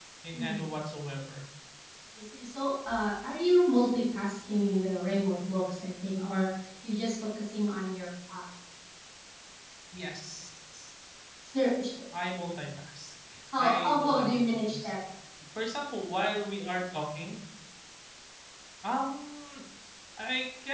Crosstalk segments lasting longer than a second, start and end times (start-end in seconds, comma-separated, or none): 13.6-14.9